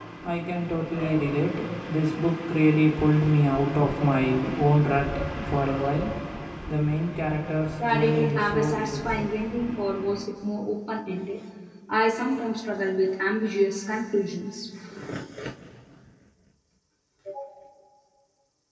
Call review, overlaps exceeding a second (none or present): present